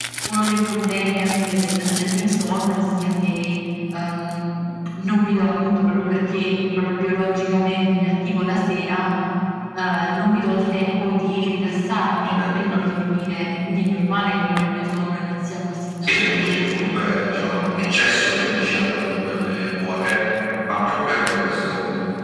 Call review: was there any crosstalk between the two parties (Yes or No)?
Yes